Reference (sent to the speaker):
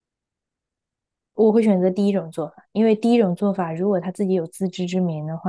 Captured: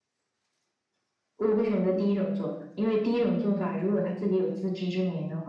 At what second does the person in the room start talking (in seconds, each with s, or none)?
none